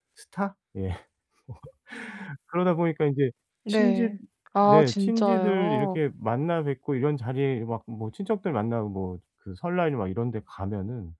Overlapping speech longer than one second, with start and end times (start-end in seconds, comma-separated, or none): 4.6-6.0